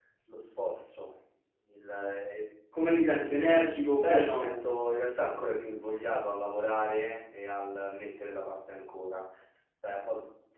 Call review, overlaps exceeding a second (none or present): none